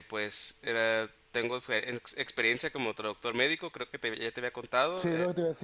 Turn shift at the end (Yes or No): Yes